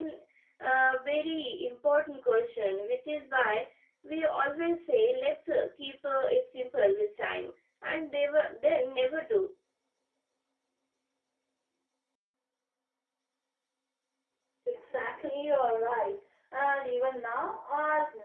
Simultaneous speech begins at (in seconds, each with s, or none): none